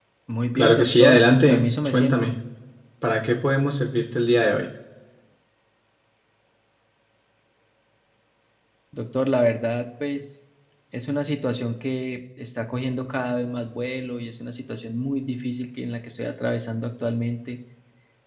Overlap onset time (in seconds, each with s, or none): 0.6 s